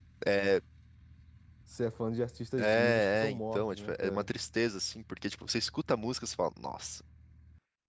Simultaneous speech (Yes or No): Yes